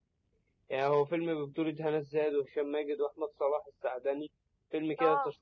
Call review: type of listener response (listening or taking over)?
listening